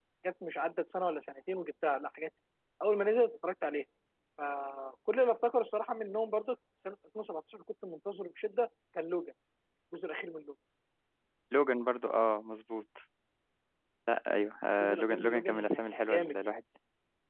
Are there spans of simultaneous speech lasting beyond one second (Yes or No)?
Yes